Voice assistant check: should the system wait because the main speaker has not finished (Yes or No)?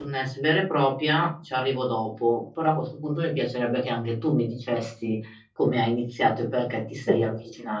Yes